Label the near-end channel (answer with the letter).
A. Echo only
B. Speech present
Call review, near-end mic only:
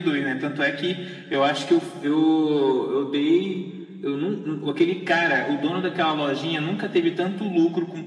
A